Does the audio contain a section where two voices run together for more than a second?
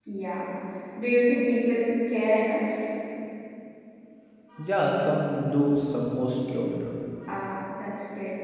No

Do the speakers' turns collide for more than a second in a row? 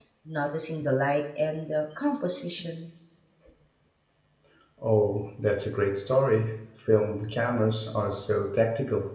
No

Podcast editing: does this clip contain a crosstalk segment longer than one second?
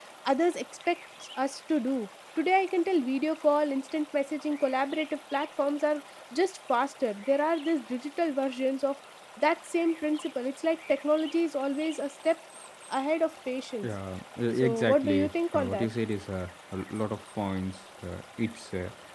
Yes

